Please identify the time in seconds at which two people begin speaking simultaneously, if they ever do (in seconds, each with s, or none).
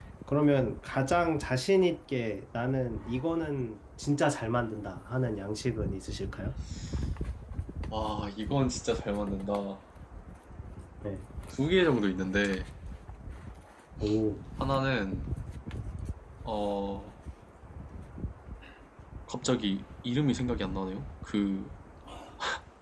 none